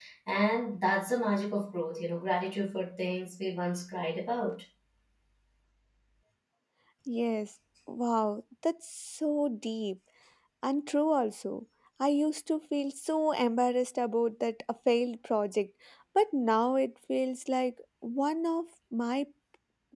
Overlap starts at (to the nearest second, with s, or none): none